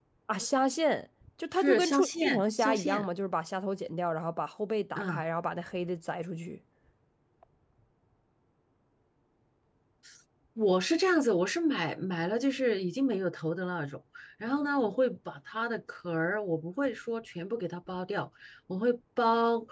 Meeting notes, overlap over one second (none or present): present